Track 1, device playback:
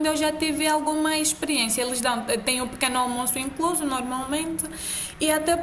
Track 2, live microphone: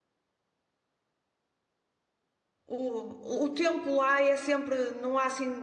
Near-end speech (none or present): present